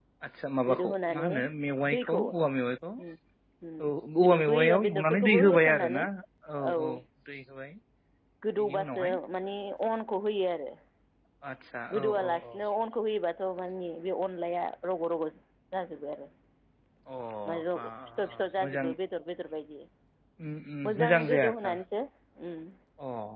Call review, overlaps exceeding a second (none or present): present